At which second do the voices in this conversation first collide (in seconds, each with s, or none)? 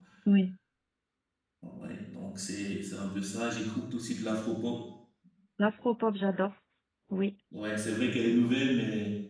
none